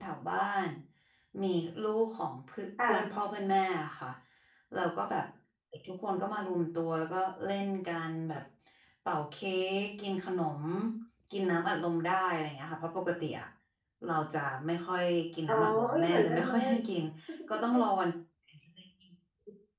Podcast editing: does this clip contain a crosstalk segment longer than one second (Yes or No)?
Yes